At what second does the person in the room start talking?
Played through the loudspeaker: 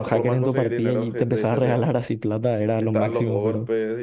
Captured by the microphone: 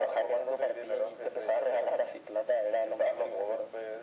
none

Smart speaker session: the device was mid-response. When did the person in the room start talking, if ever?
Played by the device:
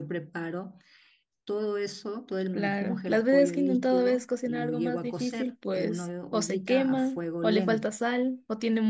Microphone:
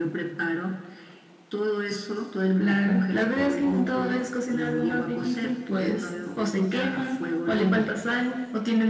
none

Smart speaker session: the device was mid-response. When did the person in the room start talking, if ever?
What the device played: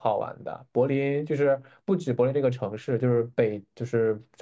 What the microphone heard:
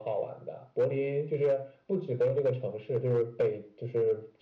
none

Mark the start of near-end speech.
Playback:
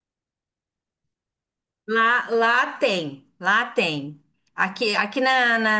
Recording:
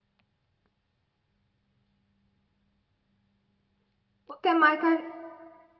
4.3 s

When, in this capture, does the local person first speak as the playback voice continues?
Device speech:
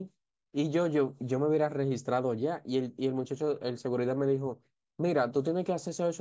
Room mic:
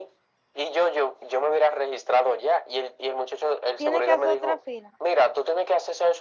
3.7 s

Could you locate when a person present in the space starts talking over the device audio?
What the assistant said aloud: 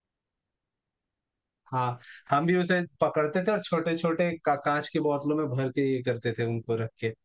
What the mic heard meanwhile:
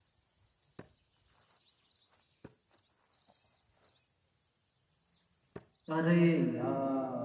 5.9 s

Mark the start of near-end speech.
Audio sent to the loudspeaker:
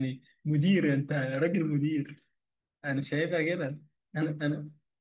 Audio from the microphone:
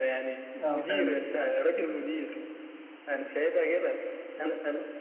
0.6 s

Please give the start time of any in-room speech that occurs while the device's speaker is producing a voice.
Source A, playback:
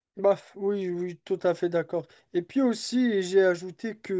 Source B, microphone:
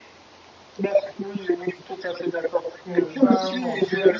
2.9 s

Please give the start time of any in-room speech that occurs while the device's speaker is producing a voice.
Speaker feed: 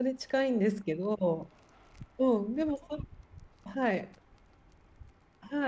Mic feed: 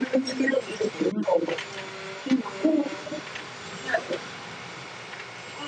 none

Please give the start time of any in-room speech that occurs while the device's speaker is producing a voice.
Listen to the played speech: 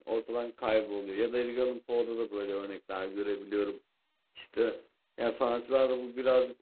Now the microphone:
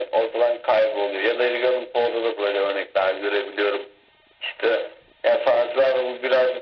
none

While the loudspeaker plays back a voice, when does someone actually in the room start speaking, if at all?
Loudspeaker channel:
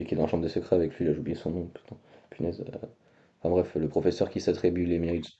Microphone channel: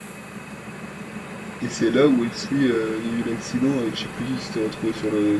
1.6 s

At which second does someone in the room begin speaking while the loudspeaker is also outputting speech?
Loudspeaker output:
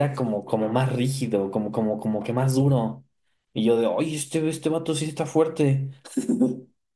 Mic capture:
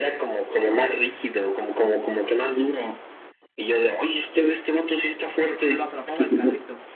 5.4 s

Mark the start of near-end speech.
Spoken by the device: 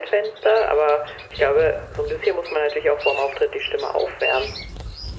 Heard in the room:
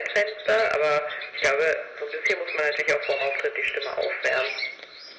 none

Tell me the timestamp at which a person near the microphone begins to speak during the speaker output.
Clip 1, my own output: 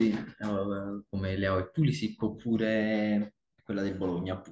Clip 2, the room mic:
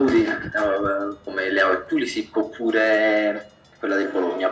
none

